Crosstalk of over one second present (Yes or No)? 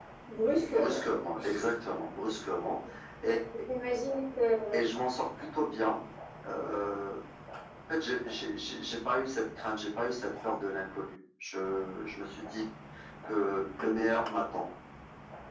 No